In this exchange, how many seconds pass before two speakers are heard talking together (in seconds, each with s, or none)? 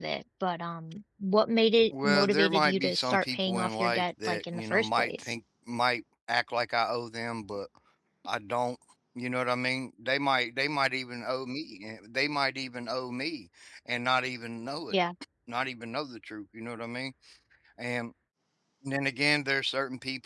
1.9 s